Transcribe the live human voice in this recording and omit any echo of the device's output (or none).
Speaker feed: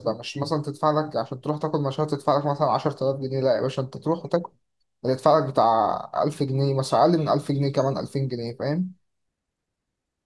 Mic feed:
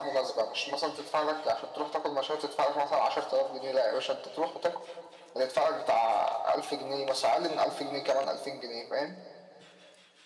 none